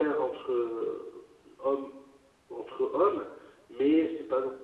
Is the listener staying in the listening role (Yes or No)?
Yes